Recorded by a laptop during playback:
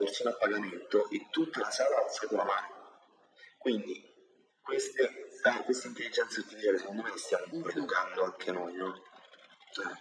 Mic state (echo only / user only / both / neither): both